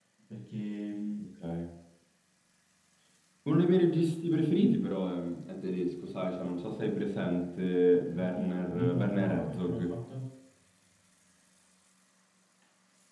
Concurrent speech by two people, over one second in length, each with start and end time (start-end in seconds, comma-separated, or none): 8.1-9.9